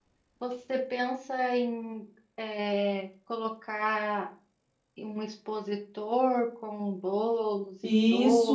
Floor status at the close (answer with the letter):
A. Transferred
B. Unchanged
A